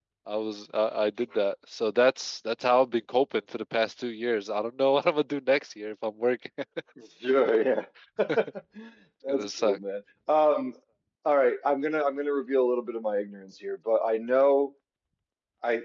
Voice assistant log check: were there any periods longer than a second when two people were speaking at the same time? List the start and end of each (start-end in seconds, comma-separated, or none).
none